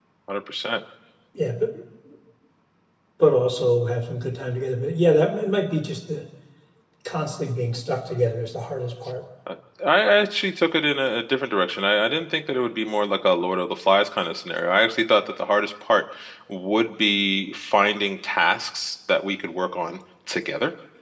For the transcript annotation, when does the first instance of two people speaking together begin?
none

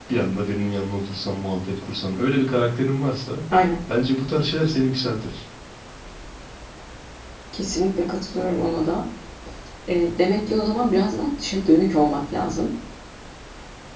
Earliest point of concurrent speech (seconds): none

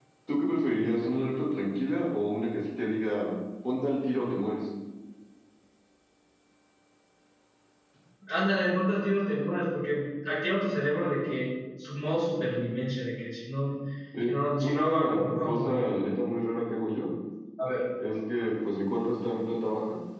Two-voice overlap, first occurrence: 14.2 s

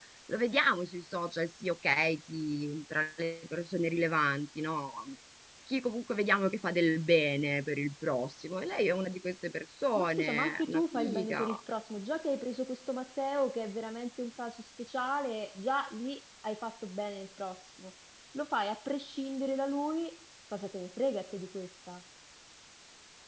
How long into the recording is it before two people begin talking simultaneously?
9.9 s

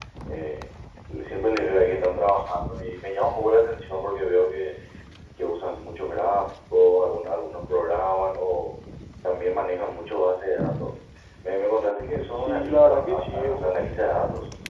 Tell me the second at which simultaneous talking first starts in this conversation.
12.4 s

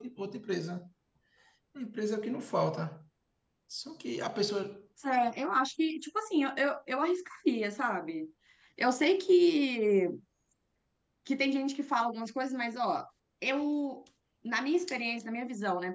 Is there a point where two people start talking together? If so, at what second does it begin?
none

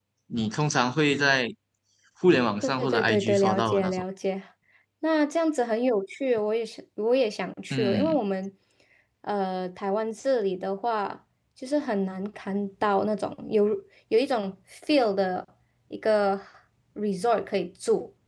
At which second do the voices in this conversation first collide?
2.6 s

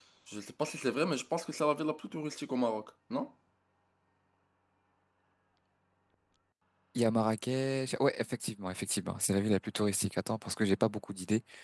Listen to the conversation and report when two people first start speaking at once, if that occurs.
none

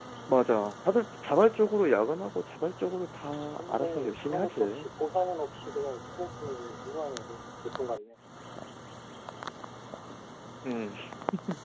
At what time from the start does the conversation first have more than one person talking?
3.5 s

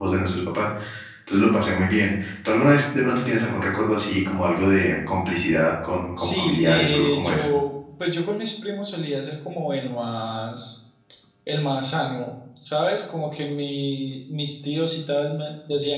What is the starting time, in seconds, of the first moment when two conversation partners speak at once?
6.2 s

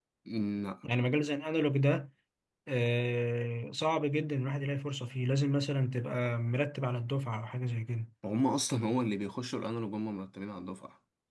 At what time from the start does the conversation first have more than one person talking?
none

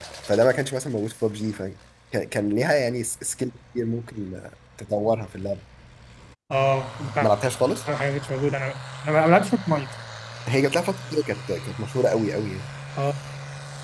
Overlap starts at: none

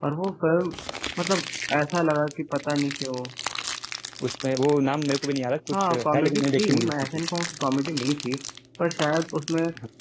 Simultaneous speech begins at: 5.7 s

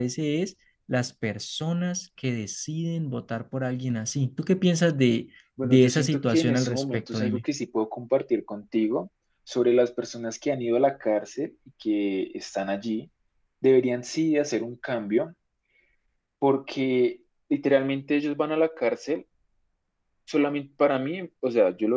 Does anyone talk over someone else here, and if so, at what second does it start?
5.6 s

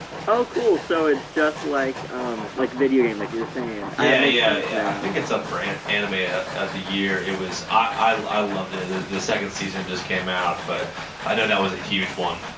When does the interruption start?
4.0 s

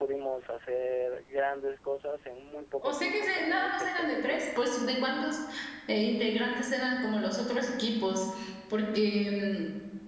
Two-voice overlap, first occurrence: 2.8 s

